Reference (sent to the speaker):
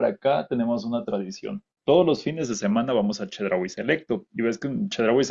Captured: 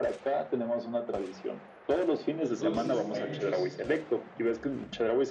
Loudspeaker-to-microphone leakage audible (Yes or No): Yes